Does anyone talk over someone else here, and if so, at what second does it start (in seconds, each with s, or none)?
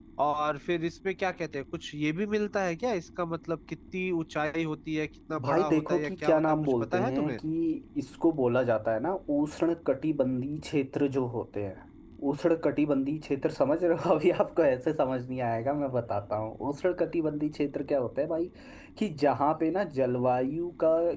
5.3 s